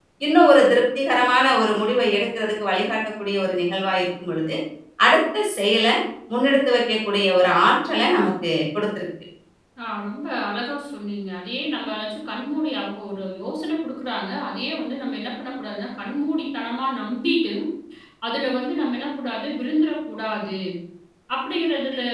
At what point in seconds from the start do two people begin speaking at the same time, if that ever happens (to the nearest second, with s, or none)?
none